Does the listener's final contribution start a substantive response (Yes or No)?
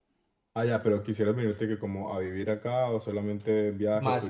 Yes